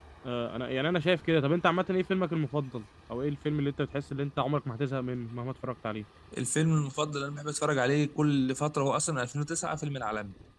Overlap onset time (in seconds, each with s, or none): none